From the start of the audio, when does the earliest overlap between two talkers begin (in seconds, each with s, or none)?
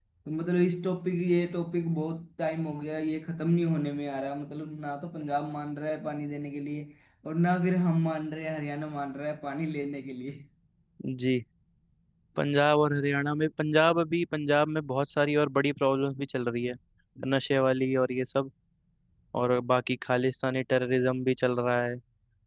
none